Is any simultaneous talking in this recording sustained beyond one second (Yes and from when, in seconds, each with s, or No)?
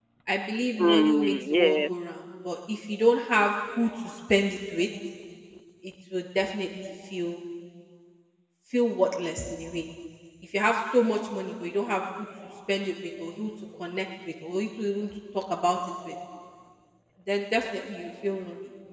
Yes, from 0.8 s